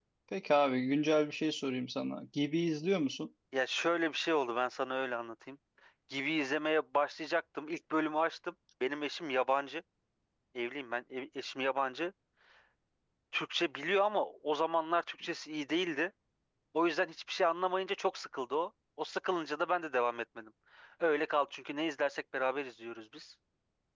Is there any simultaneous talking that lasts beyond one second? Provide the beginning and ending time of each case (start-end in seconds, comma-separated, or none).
none